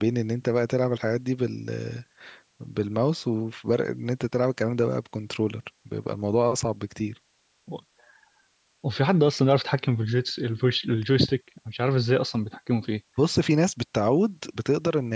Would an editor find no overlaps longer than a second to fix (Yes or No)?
Yes